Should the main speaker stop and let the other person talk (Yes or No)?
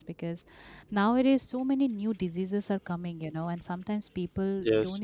No